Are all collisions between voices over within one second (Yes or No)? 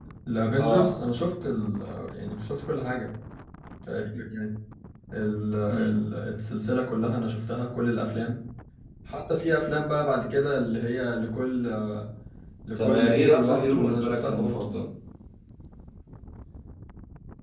No